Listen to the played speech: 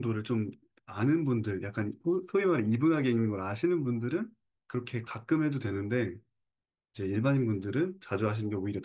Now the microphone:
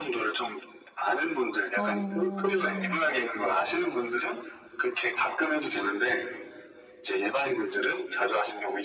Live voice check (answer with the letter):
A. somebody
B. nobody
A